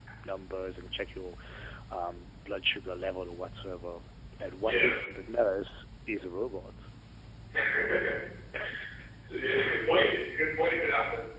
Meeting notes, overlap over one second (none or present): none